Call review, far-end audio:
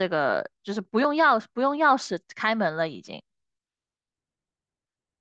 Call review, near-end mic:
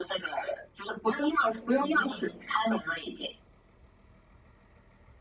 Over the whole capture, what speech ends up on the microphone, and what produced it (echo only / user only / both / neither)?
both